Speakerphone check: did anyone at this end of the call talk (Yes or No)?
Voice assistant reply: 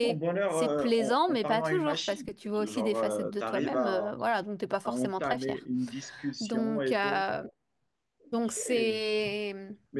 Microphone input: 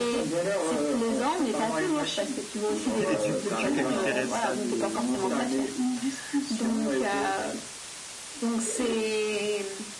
Yes